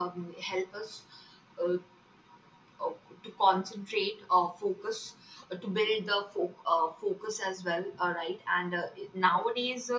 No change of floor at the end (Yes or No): Yes